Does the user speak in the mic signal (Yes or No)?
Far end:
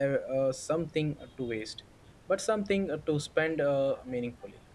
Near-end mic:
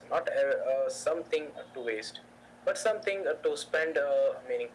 No